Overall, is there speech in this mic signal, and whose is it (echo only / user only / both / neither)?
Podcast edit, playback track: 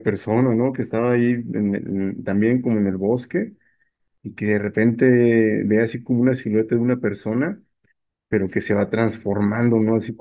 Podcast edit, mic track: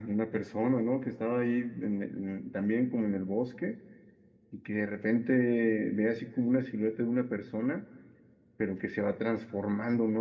echo only